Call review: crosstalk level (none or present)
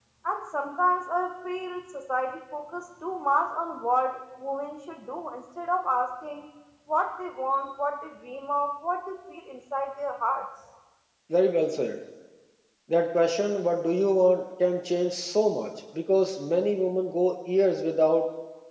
none